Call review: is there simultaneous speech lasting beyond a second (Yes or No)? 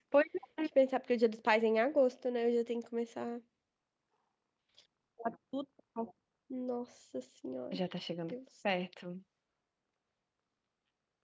No